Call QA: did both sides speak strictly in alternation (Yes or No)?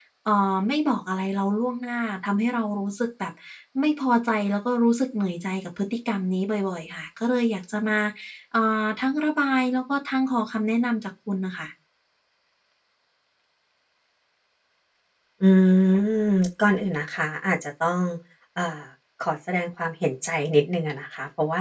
Yes